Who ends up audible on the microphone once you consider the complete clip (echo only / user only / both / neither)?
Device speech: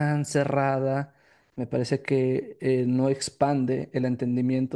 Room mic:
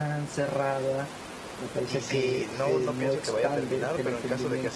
both